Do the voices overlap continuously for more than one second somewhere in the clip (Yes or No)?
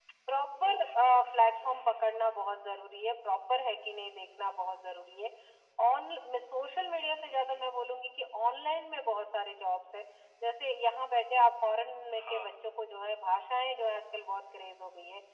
Yes